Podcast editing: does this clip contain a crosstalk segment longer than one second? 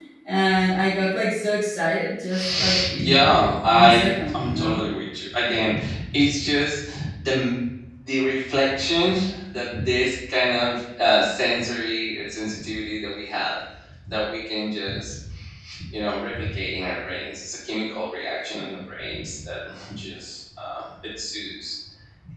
Yes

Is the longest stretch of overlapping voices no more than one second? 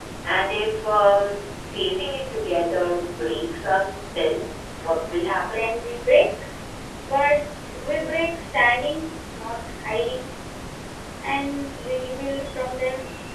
Yes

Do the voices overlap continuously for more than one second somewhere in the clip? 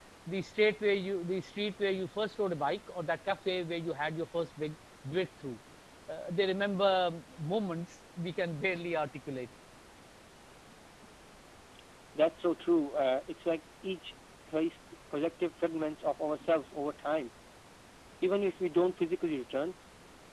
No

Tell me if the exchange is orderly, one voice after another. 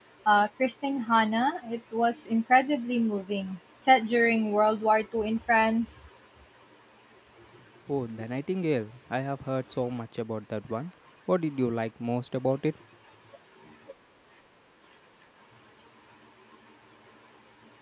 Yes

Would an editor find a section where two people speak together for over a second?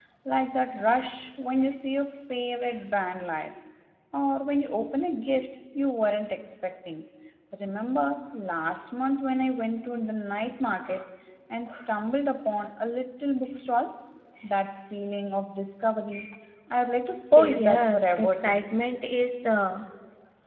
Yes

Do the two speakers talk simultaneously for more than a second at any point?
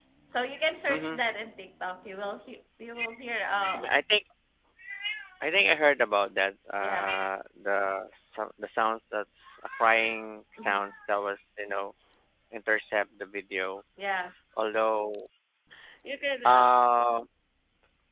No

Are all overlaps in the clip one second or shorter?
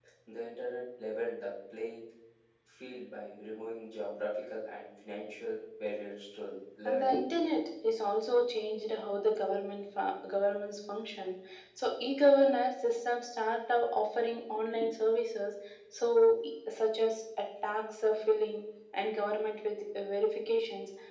Yes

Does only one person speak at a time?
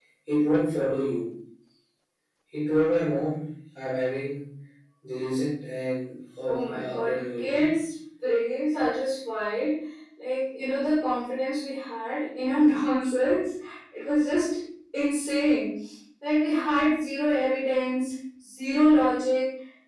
No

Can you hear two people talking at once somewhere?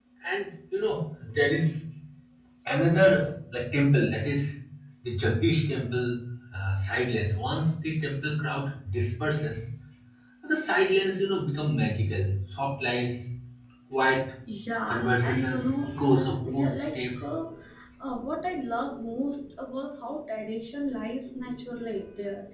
Yes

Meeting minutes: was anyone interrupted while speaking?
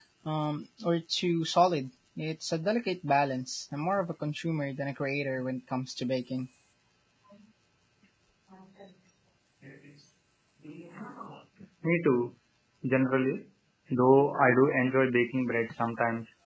No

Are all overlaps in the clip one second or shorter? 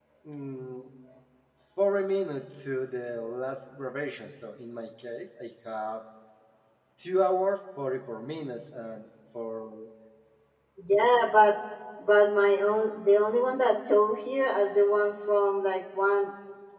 Yes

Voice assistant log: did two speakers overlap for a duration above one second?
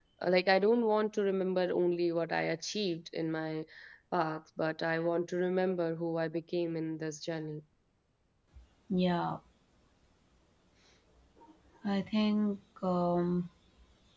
No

